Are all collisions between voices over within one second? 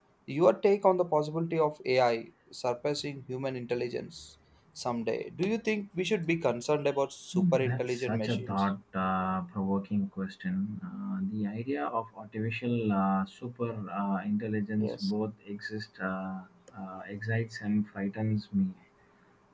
No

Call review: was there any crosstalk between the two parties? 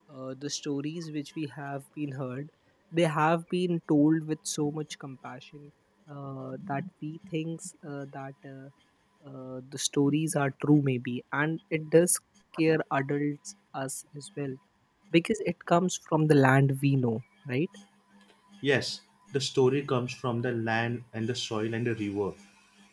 No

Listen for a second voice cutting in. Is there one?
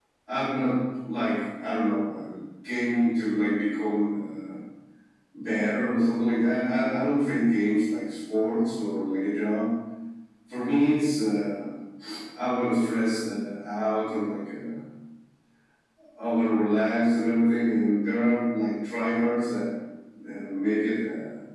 No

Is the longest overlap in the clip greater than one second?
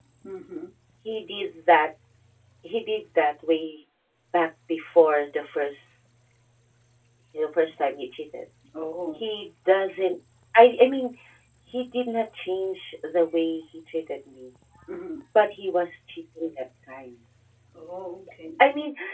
No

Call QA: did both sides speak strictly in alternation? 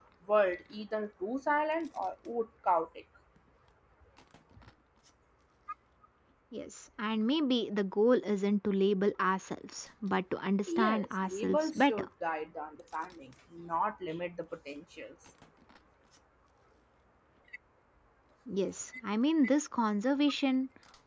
No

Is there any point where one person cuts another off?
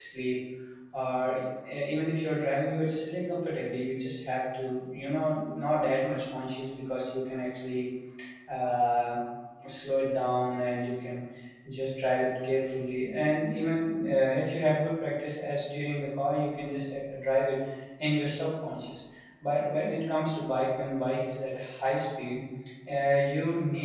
No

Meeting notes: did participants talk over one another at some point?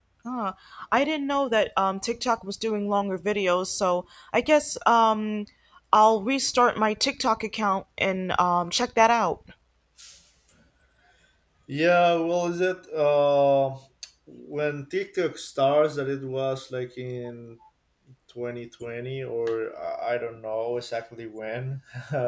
No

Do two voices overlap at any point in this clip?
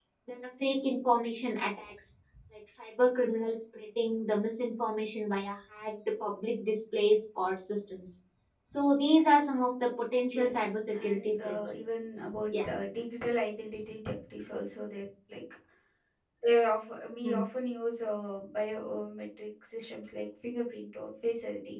Yes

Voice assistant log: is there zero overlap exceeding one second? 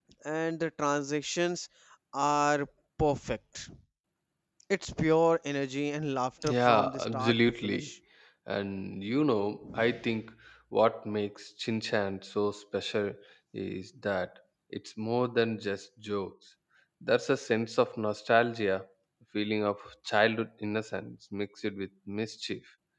No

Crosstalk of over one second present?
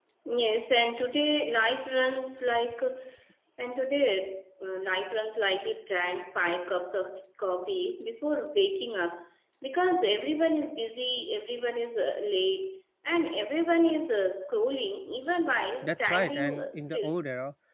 Yes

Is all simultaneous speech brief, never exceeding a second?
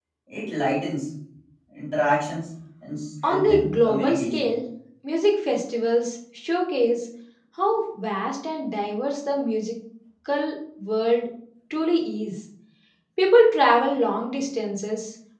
No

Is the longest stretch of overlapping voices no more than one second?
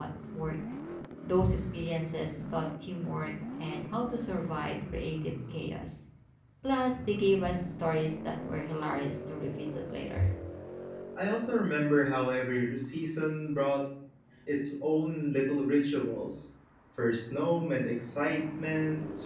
Yes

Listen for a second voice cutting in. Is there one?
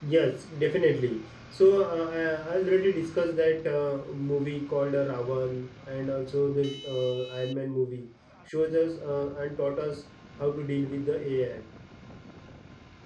No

